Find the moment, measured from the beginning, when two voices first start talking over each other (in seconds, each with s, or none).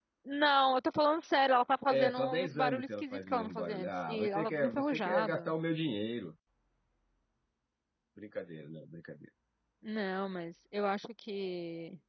1.9 s